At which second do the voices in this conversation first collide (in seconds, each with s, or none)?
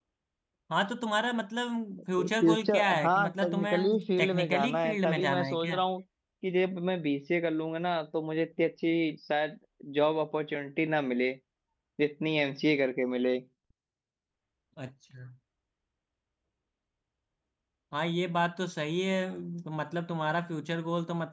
2.2 s